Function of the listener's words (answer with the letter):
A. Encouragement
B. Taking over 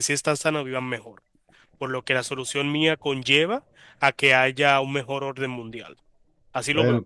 B